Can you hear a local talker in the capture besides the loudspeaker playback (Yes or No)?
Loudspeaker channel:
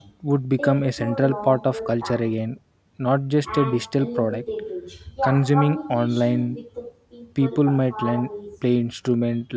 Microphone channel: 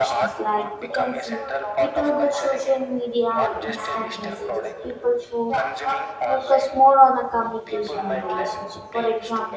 Yes